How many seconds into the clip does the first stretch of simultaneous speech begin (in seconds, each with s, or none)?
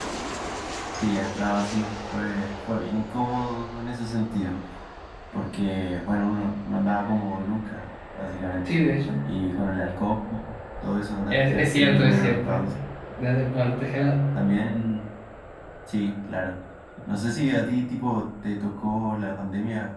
11.3 s